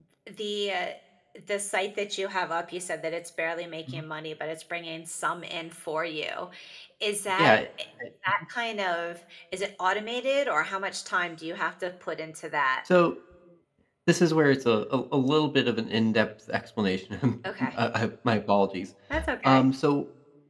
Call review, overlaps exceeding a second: none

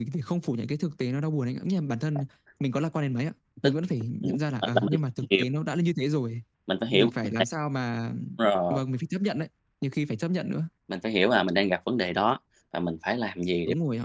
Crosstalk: present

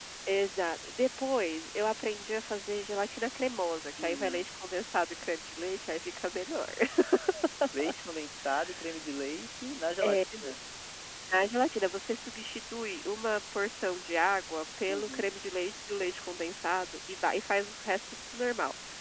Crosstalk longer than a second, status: none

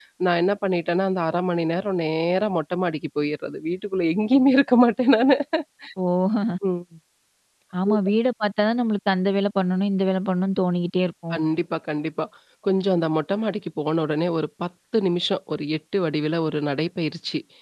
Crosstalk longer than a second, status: none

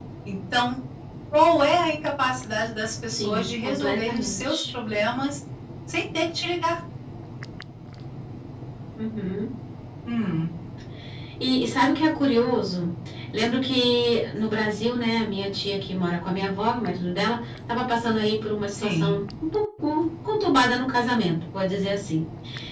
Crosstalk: present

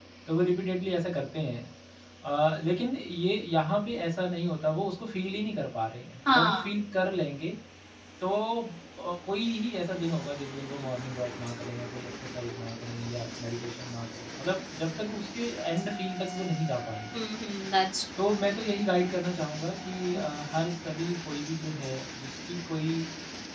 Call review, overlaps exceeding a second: none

